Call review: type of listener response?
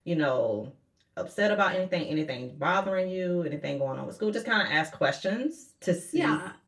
listening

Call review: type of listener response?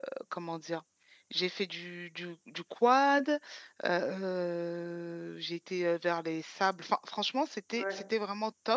listening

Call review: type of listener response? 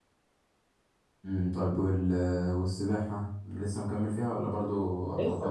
taking over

